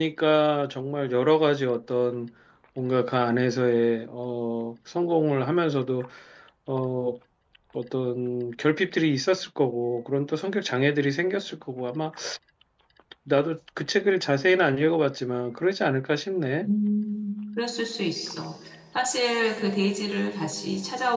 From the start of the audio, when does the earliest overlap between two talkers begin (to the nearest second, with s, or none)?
none